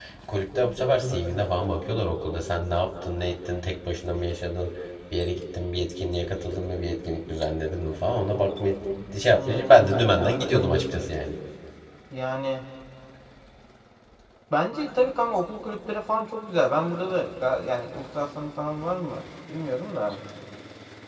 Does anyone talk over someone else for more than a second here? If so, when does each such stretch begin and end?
9.3-10.7

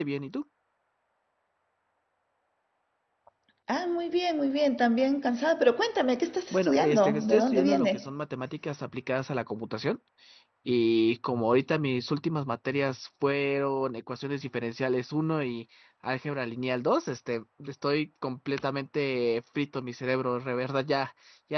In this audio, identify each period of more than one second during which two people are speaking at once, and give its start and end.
6.5-8.1

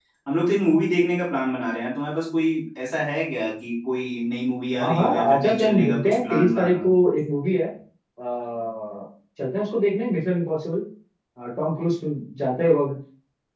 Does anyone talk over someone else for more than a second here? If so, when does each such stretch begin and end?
4.8-6.8

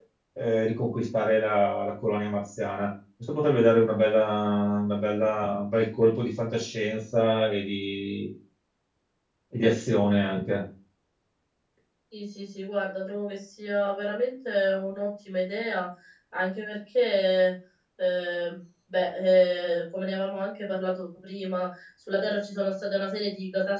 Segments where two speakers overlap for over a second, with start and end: none

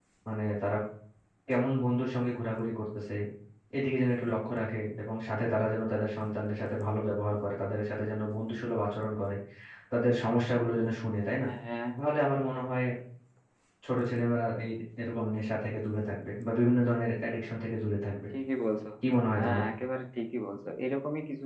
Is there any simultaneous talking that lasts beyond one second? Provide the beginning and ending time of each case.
none

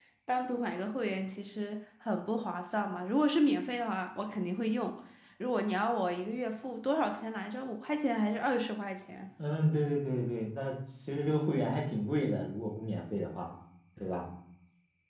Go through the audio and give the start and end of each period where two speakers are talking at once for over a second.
none

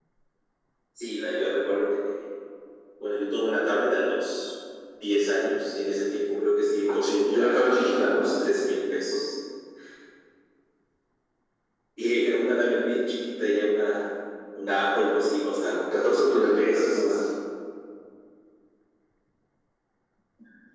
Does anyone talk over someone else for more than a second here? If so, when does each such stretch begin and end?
7.0-8.2, 15.6-17.2

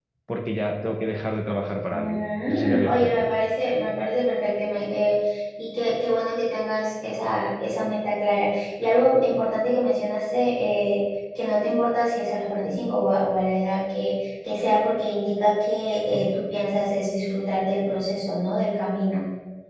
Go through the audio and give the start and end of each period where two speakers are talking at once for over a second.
1.9-3.3

